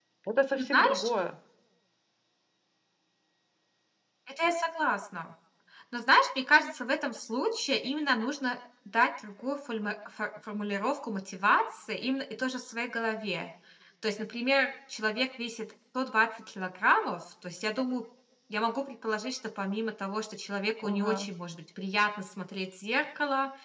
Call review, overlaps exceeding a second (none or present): none